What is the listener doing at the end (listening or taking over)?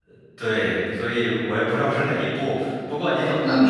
taking over